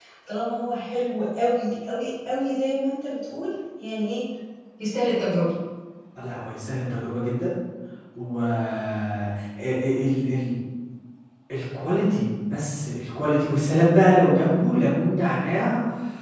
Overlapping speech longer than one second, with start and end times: none

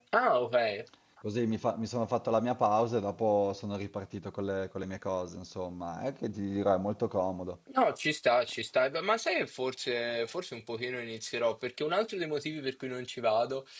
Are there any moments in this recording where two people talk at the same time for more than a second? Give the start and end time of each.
none

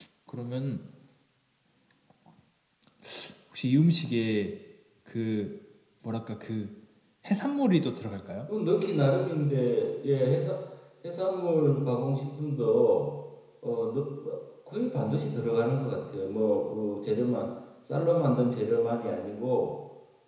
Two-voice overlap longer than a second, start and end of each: none

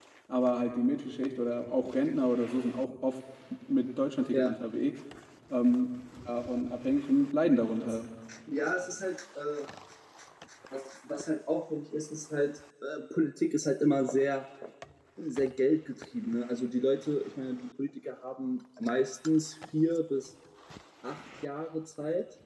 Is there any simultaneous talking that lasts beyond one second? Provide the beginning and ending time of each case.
none

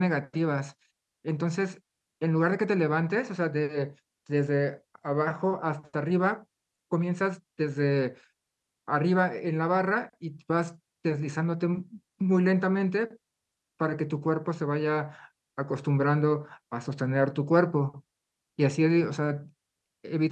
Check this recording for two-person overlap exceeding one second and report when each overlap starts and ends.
none

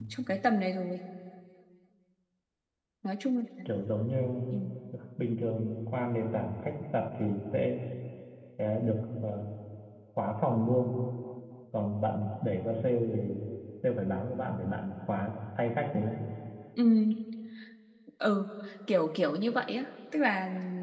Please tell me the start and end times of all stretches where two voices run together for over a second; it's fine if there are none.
none

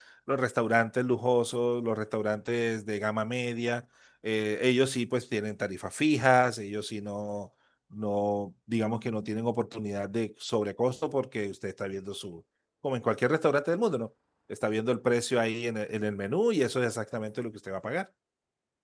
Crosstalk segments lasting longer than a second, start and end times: none

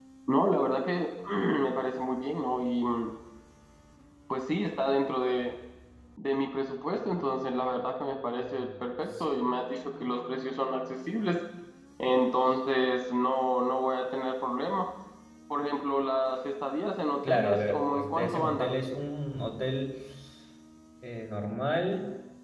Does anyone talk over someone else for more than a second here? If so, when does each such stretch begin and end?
17.3-18.7

